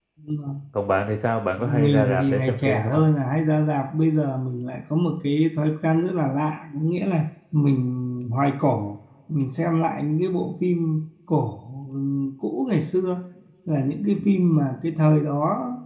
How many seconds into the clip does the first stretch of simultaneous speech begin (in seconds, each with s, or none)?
1.6 s